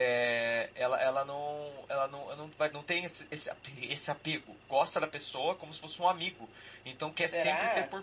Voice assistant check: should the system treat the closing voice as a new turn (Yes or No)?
No